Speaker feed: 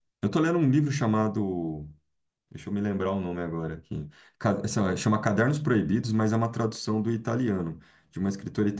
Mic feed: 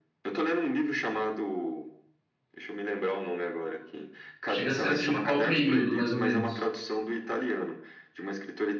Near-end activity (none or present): present